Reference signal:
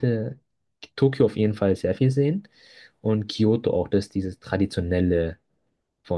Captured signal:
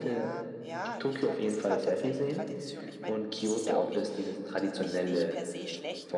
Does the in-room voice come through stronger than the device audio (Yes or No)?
No